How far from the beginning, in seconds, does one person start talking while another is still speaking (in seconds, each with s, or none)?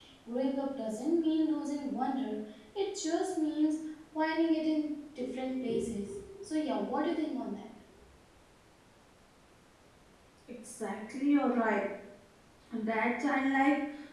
none